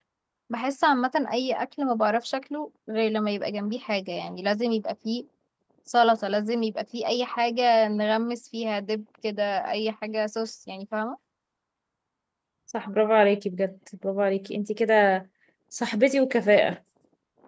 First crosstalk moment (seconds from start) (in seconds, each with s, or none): none